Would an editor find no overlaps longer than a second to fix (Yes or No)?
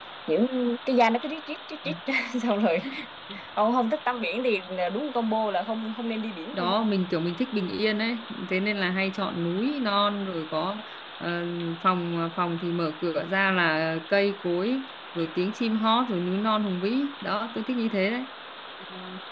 Yes